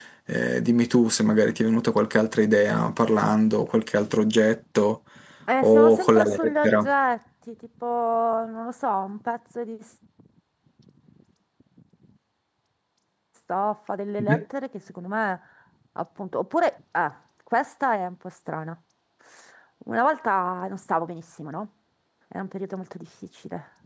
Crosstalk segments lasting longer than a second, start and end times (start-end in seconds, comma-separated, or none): 5.6-6.9